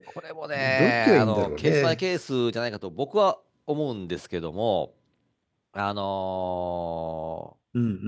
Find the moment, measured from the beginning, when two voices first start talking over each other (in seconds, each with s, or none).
0.5 s